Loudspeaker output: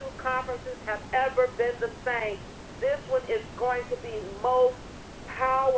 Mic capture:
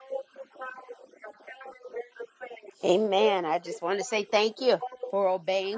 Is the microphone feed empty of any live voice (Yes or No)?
No